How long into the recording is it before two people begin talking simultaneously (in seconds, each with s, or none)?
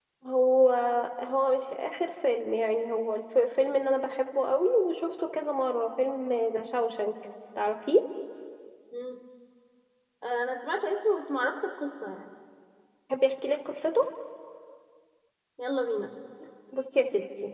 none